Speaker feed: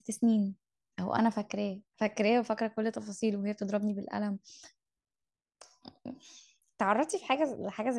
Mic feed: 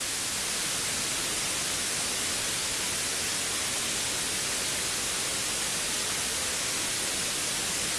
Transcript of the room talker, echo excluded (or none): none